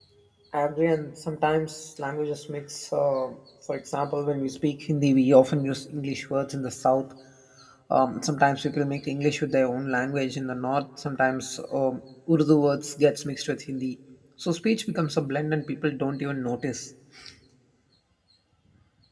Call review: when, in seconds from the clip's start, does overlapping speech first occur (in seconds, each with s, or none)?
none